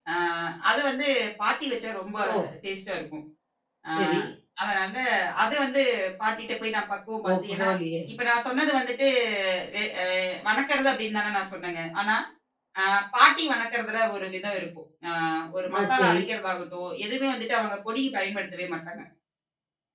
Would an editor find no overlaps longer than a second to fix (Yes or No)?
Yes